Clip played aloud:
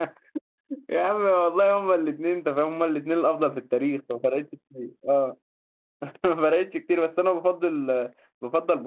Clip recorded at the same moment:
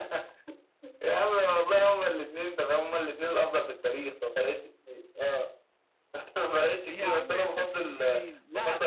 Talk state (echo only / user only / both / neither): both